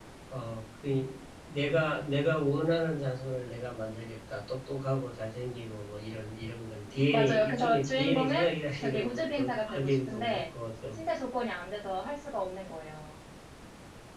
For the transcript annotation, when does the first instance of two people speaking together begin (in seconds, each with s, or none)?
7.1 s